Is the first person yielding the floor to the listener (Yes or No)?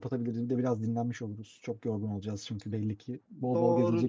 Yes